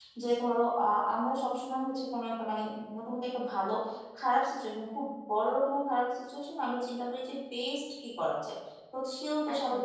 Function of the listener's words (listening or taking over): listening